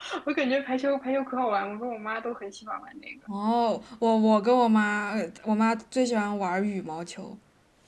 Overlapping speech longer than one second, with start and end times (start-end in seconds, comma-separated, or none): none